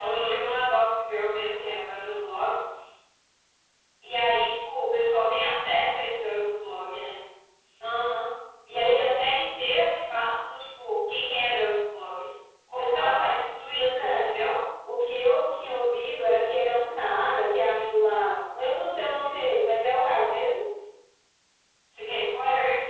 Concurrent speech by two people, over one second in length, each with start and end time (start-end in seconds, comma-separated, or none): 12.8-14.2